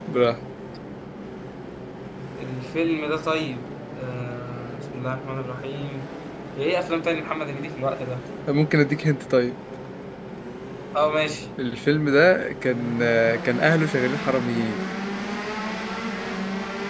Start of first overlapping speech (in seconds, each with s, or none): none